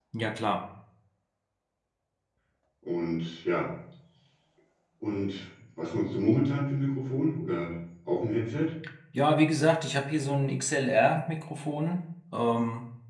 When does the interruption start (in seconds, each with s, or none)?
none